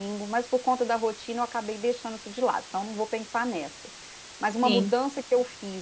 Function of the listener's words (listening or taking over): listening